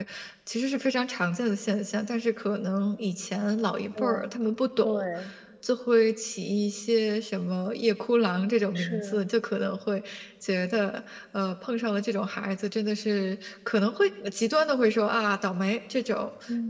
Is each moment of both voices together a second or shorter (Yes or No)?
Yes